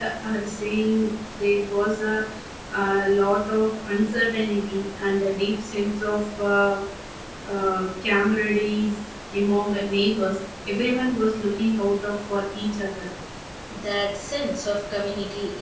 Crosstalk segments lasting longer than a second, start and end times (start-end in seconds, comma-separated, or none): none